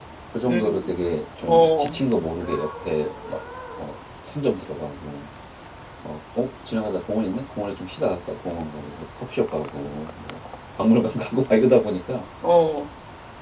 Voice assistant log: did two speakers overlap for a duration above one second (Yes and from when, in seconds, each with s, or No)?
No